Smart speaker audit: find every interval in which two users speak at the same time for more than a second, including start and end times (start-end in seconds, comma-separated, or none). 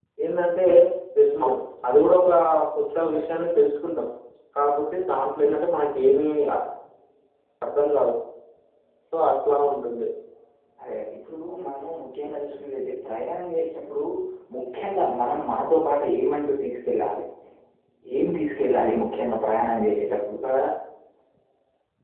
none